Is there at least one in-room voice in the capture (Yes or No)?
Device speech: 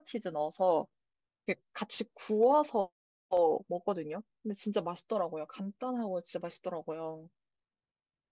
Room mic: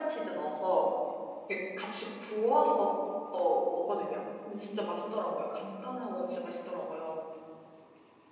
No